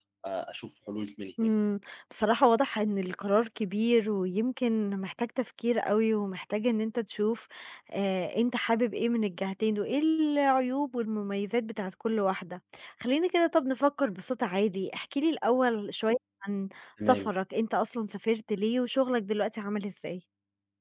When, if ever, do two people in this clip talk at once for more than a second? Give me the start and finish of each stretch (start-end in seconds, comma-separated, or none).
none